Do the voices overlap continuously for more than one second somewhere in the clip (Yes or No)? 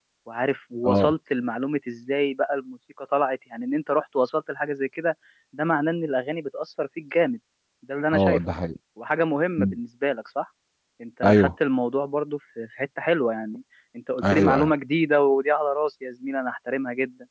No